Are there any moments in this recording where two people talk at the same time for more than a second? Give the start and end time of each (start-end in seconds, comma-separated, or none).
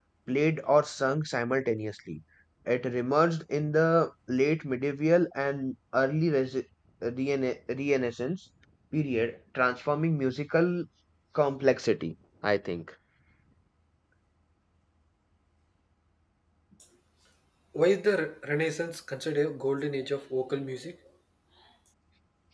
none